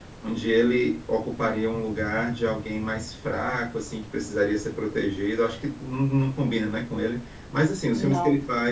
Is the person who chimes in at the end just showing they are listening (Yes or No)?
Yes